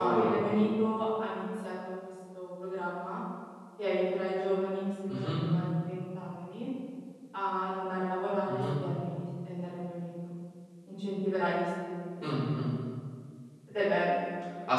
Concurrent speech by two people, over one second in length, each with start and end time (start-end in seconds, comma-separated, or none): none